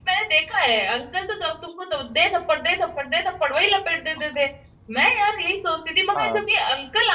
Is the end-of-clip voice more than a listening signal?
No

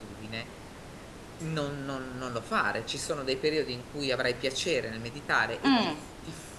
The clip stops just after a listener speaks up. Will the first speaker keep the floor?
Yes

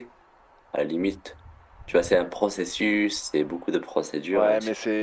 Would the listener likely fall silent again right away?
No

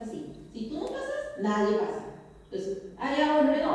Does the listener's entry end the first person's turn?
No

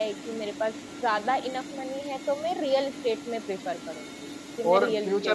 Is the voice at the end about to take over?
Yes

